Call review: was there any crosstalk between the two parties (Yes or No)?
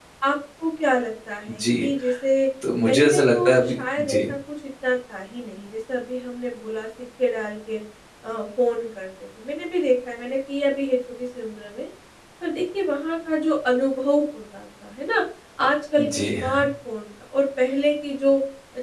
Yes